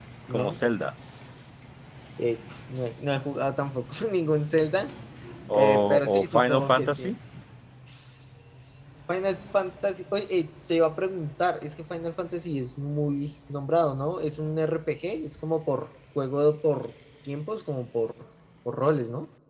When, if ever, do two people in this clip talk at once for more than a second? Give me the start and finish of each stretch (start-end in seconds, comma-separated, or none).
5.5-7.1